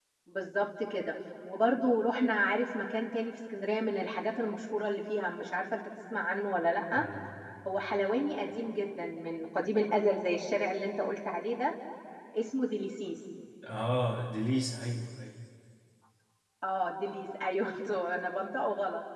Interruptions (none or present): none